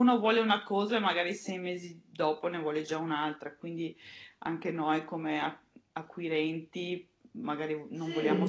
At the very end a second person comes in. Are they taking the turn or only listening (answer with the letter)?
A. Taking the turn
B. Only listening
B